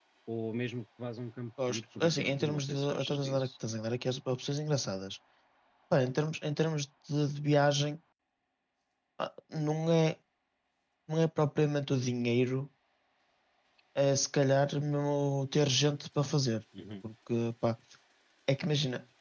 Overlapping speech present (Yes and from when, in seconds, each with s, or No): Yes, from 1.6 s